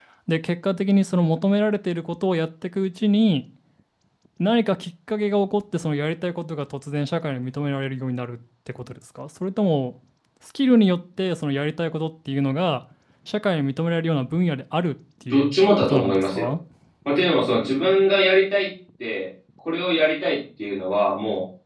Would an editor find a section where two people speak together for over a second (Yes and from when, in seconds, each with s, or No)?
Yes, from 15.3 s